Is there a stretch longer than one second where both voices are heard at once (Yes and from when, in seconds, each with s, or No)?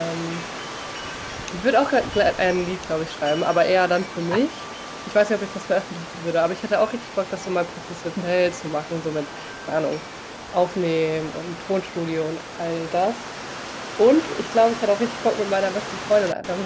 No